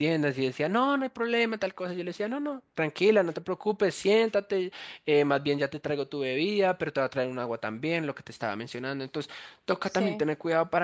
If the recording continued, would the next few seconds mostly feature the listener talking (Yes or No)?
No